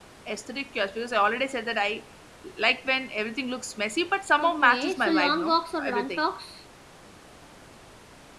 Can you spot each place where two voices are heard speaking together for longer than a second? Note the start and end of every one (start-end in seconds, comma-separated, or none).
4.4-6.2